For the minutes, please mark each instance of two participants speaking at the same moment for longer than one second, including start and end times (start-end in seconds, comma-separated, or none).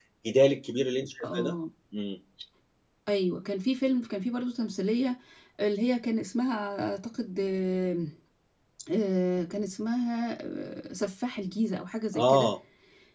none